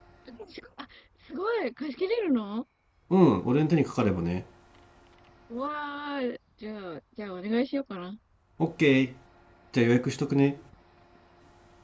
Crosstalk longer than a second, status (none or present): none